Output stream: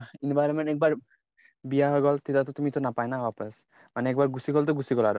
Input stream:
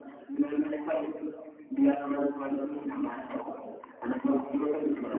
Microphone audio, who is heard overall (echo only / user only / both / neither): echo only